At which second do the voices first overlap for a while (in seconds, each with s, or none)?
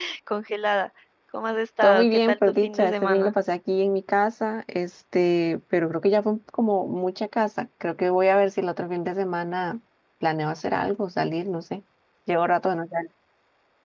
1.8 s